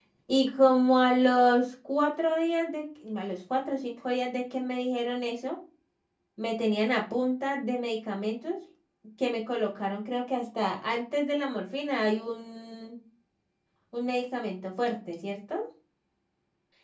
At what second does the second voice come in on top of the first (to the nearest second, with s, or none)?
none